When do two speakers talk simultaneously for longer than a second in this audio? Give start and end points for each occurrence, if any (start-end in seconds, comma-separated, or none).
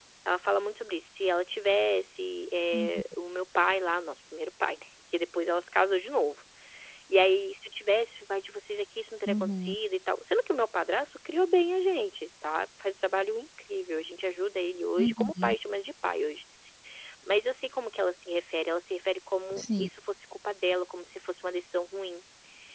none